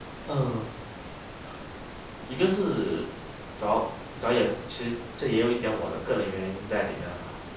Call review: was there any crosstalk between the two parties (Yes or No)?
No